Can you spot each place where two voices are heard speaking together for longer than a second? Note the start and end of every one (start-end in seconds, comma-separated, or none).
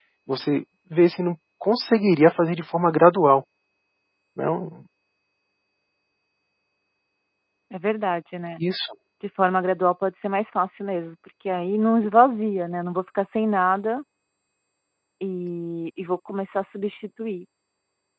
none